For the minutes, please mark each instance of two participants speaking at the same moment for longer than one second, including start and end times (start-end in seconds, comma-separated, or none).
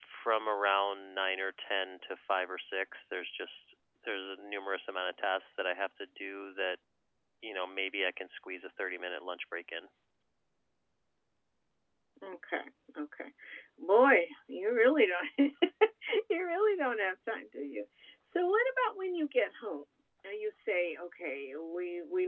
none